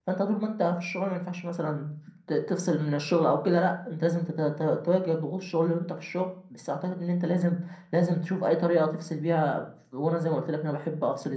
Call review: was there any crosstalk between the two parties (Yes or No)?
No